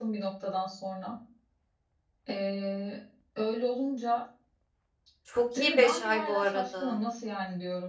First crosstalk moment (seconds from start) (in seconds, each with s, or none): 5.6 s